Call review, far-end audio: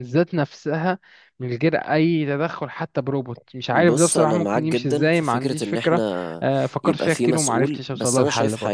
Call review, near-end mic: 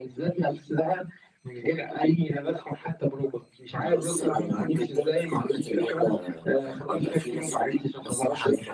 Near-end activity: none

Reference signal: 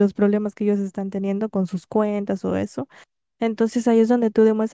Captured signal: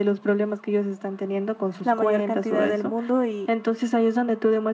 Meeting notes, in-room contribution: present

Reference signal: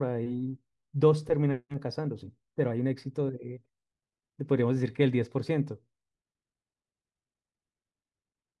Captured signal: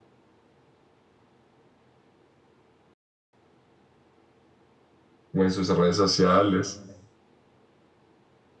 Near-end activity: present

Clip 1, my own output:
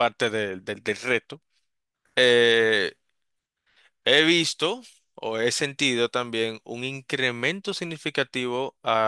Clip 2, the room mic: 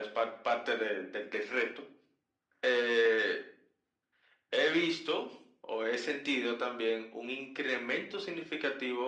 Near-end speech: none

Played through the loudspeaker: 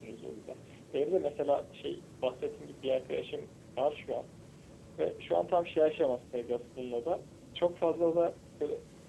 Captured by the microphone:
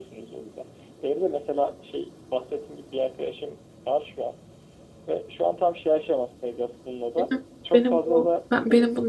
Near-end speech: present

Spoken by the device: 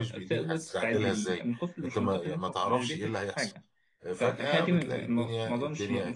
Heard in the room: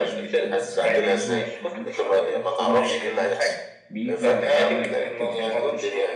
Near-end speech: present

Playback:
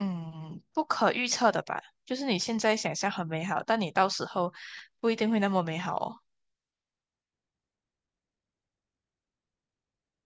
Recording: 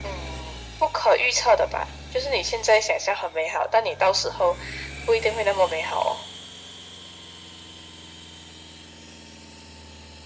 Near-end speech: none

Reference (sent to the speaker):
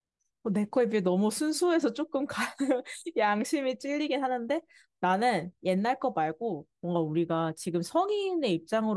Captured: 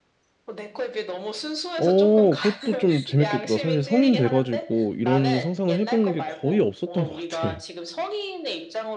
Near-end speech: present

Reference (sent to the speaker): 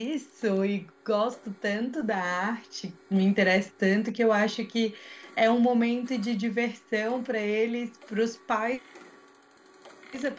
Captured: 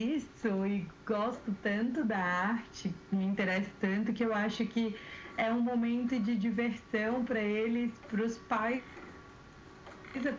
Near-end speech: none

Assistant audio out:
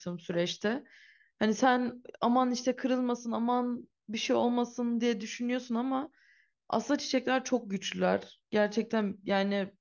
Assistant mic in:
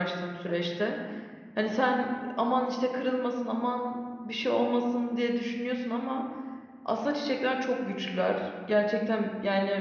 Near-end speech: none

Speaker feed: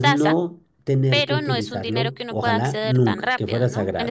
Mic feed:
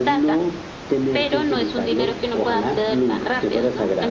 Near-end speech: none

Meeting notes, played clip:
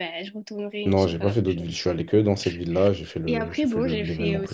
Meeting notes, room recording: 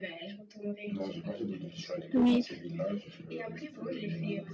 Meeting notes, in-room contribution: present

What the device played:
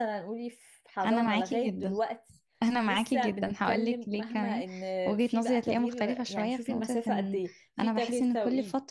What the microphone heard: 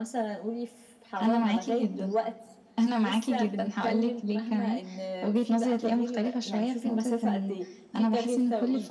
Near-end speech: none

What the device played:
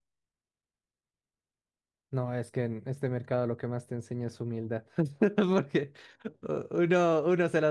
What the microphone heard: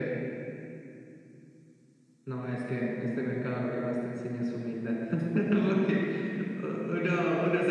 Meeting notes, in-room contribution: none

